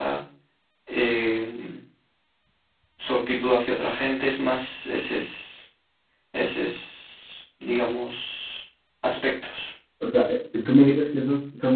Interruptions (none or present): none